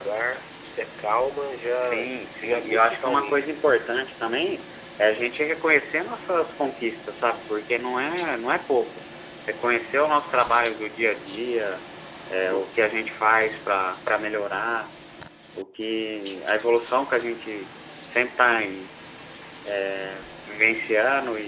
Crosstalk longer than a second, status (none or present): present